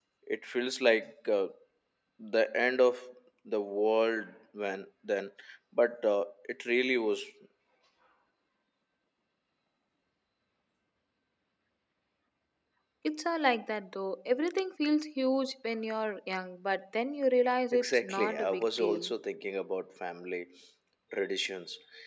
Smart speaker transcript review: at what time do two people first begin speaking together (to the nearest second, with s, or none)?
18 s